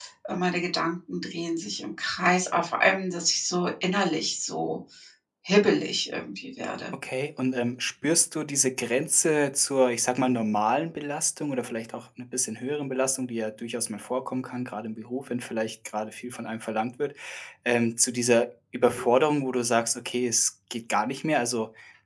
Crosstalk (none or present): none